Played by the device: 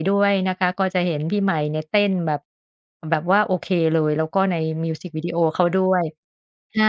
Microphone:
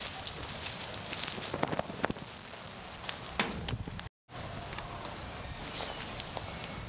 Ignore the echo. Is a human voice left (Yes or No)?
No